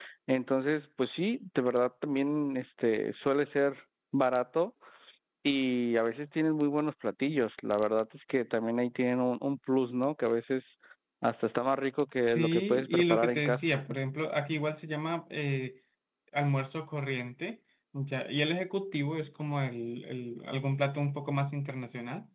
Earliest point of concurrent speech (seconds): 12.2 s

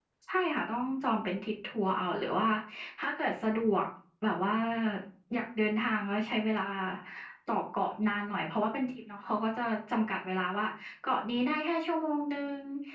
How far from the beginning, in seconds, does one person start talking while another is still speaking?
none

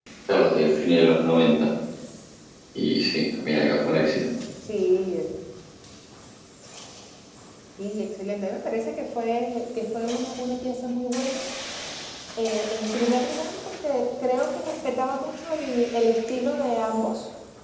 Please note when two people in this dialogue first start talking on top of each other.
none

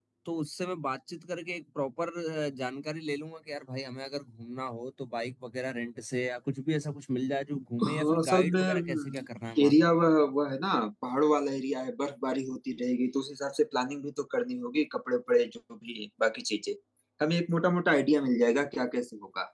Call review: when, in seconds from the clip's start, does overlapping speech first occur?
7.8 s

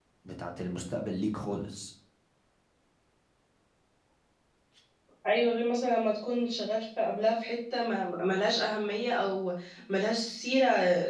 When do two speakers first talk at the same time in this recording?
none

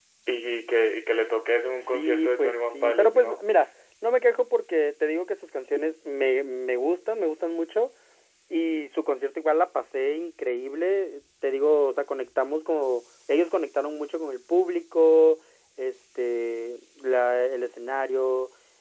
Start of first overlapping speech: 1.8 s

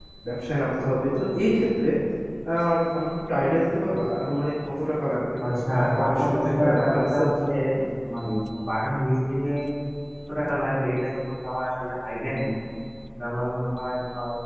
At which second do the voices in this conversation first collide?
5.4 s

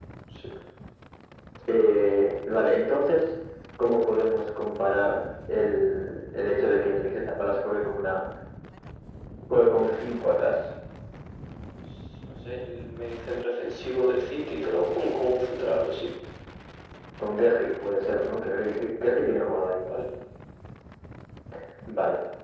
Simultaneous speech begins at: none

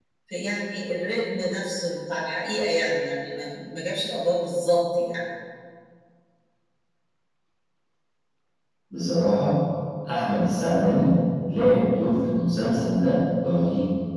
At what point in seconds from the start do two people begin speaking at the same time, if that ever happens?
none

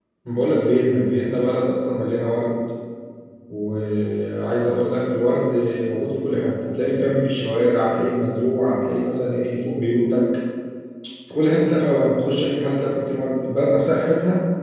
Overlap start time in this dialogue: none

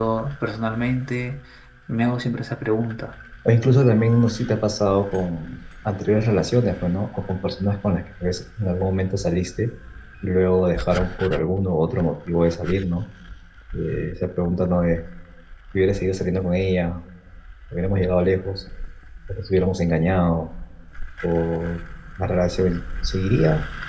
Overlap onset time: none

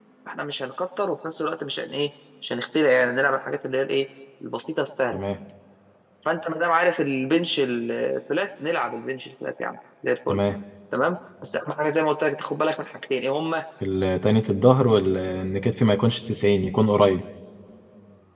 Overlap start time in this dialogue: none

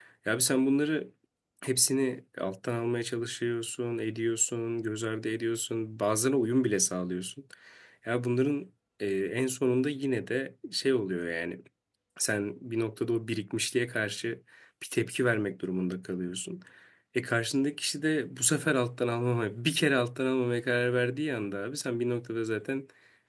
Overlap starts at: none

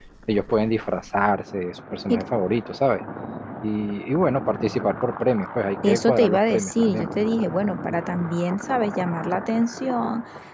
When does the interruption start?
5.8 s

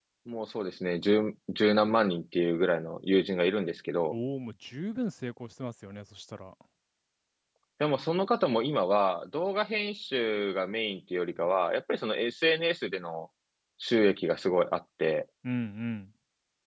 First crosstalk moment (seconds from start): none

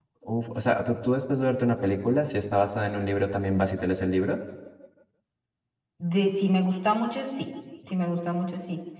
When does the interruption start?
none

